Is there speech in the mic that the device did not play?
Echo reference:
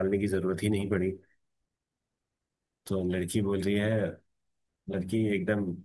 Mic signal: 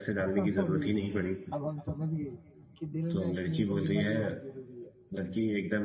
Yes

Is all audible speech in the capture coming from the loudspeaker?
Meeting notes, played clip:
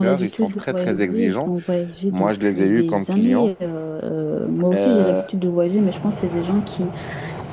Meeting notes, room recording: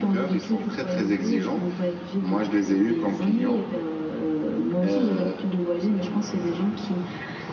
Yes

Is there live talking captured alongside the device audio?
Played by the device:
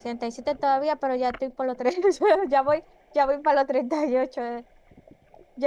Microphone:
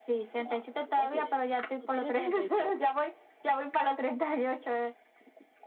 Yes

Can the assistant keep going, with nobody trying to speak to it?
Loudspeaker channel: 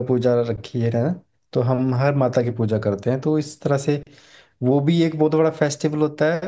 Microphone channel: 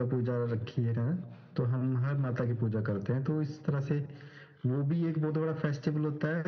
Yes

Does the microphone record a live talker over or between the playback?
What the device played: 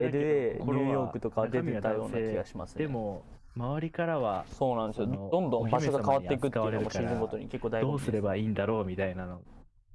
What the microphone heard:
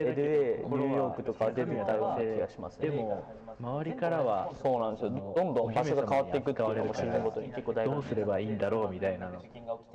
Yes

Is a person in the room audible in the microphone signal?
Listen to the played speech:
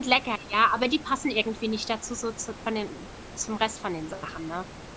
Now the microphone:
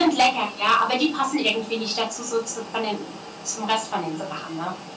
No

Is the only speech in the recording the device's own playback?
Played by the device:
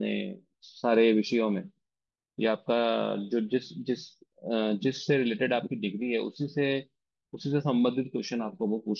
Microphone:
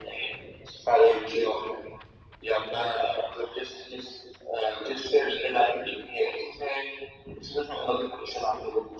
Yes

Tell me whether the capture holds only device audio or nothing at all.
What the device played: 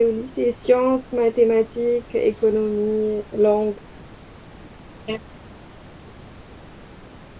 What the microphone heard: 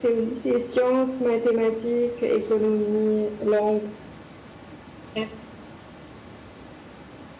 Yes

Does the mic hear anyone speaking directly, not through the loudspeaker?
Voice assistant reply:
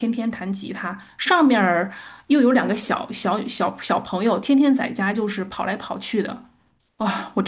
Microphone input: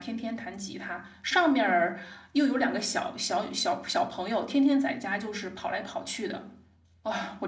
No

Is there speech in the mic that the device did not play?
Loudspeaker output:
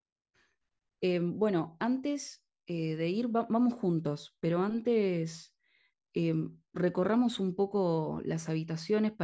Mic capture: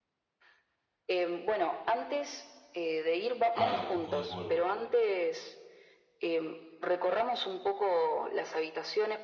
Yes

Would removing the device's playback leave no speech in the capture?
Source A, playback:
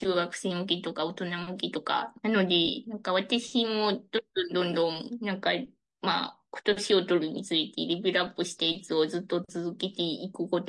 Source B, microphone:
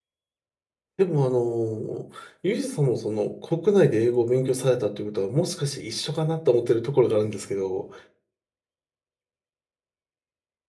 No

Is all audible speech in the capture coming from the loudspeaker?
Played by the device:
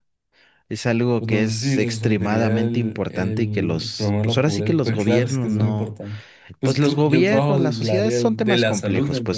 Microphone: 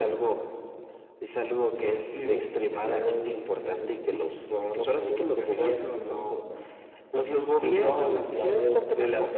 No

